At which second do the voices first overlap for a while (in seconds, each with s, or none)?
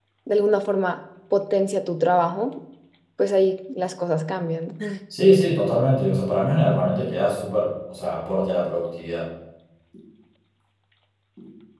none